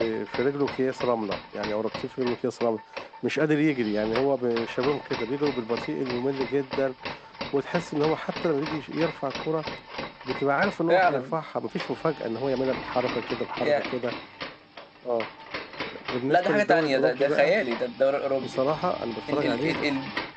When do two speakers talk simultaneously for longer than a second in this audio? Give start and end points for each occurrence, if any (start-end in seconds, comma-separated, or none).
16.3-17.6